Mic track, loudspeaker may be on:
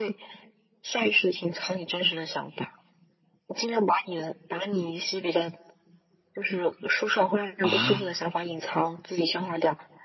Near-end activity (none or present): present